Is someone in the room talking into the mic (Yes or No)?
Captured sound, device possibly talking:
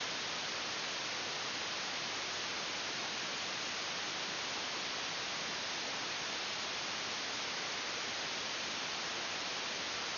No